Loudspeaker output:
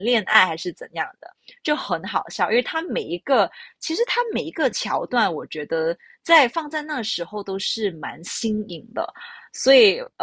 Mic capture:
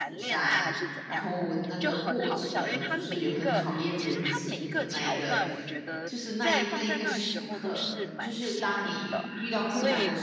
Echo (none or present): present